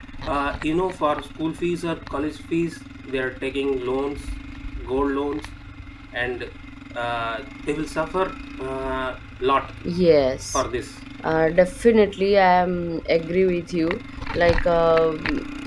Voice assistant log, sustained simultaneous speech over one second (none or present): none